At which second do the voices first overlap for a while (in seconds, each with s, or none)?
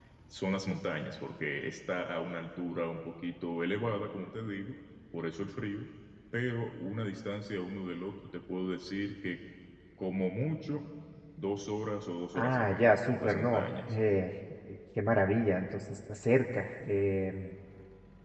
12.3 s